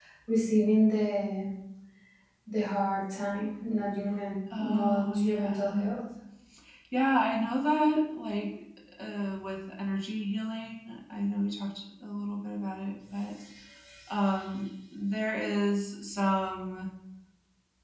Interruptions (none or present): present